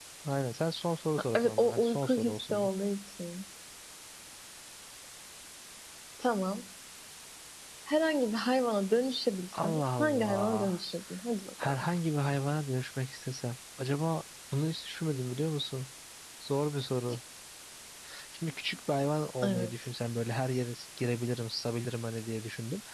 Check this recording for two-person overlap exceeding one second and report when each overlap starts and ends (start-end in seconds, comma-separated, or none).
1.4-2.7, 9.5-10.8